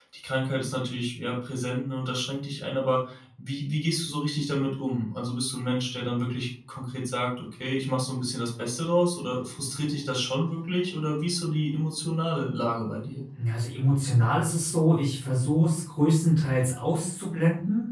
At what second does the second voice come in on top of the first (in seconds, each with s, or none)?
none